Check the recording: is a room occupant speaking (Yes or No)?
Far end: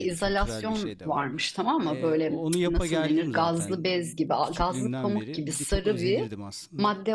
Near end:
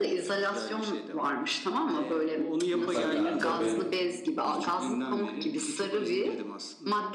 Yes